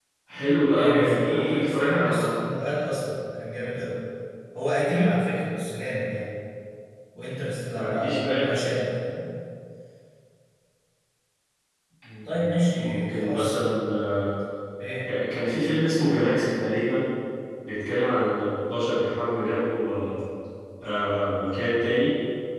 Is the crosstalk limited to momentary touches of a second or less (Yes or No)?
No